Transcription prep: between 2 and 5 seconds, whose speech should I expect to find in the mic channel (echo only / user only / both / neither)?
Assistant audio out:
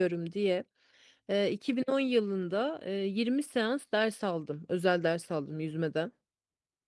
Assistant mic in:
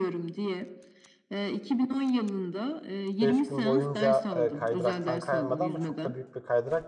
both